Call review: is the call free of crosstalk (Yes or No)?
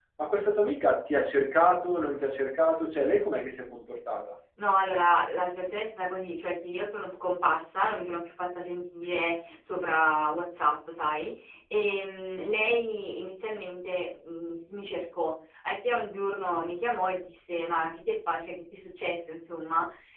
Yes